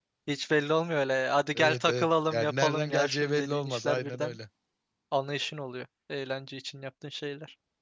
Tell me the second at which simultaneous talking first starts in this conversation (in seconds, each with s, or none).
1.6 s